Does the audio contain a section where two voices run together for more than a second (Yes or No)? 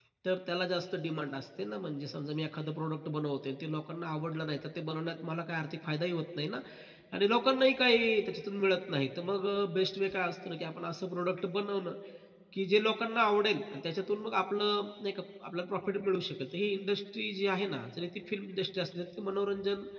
No